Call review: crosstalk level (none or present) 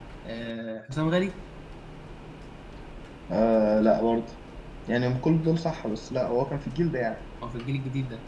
none